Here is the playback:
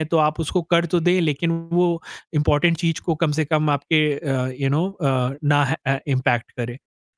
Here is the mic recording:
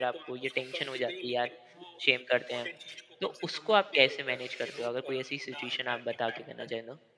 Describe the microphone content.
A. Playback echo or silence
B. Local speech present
B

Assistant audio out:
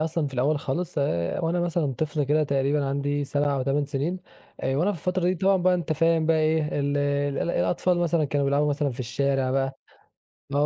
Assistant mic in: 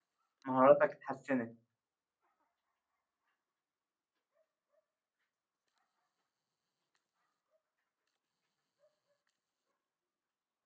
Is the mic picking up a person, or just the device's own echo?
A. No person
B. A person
B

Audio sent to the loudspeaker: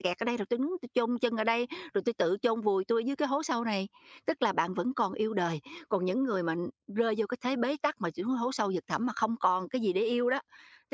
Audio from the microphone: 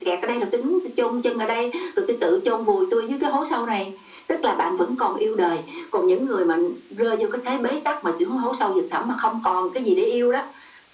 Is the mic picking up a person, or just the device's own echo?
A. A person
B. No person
B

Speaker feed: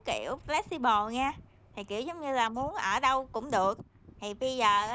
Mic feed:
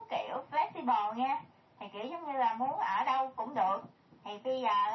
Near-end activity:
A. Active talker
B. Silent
B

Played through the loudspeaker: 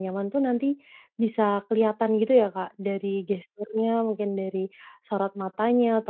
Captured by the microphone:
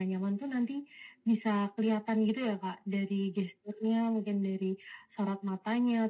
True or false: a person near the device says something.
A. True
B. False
B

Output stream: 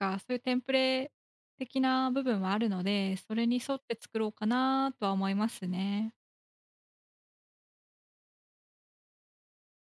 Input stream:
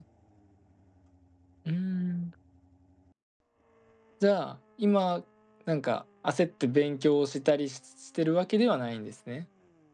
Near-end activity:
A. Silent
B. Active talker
B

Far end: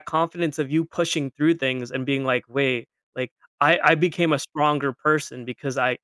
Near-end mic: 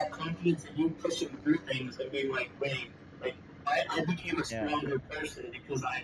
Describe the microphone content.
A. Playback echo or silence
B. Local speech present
B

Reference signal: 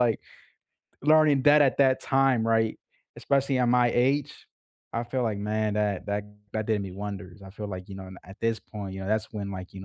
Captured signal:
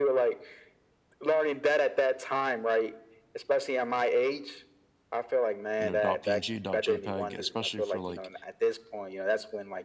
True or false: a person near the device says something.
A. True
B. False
A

